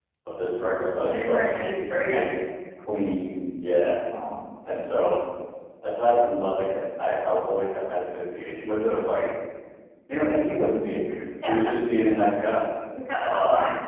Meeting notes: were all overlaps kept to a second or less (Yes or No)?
No